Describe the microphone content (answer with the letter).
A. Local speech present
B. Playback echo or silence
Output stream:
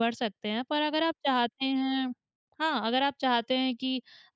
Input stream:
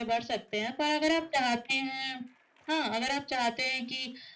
B